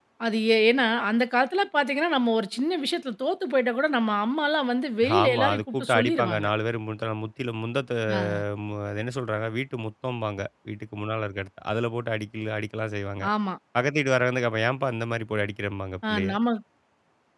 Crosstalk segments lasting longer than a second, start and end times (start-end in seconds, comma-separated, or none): 5.2-6.5